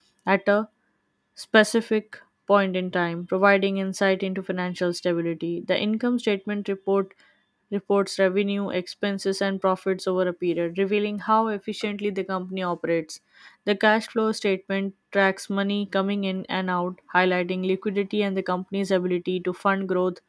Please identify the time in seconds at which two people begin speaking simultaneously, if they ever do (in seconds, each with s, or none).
none